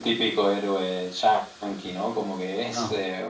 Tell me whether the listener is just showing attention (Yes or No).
Yes